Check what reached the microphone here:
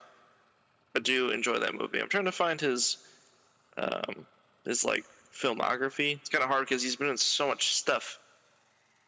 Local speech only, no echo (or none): none